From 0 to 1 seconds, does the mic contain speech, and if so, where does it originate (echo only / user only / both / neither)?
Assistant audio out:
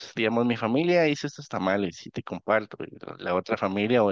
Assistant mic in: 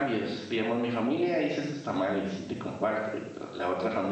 echo only